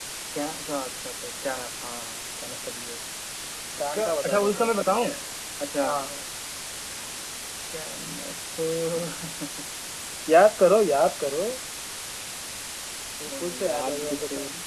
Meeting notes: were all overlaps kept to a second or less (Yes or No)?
No